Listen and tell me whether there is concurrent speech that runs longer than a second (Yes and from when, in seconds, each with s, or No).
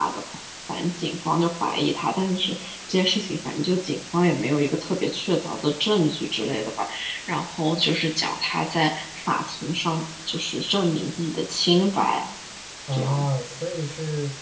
No